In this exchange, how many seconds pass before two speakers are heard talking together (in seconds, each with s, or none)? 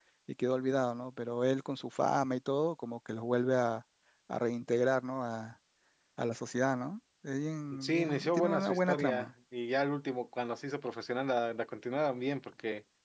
7.7 s